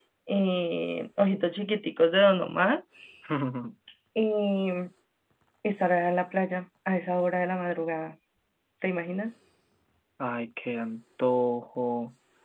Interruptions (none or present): none